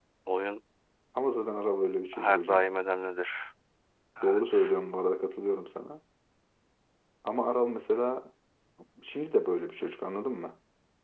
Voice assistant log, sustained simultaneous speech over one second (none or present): none